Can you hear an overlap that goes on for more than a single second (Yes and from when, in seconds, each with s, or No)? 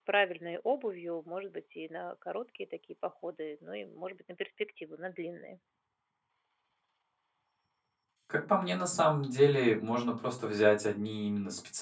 No